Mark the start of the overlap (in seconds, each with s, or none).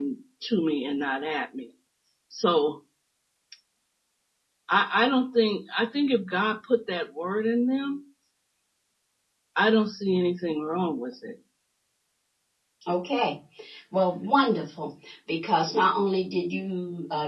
none